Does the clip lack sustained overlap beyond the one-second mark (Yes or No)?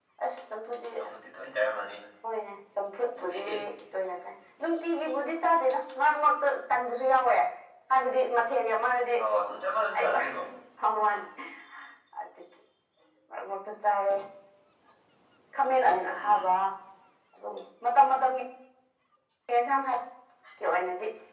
Yes